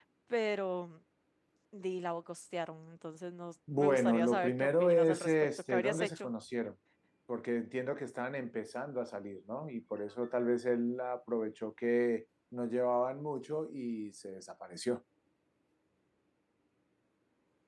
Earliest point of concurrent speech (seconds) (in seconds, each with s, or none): 3.7 s